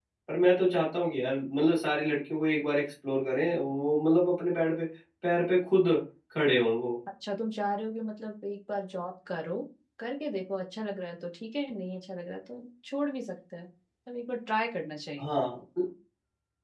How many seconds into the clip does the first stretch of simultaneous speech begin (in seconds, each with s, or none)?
none